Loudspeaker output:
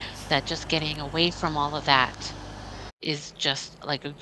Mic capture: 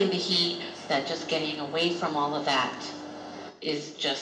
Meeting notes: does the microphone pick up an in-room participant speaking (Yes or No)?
No